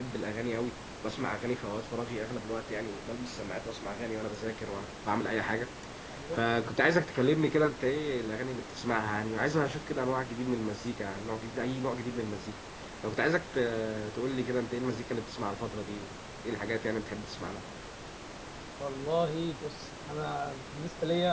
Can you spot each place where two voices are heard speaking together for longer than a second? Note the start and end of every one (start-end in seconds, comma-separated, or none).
none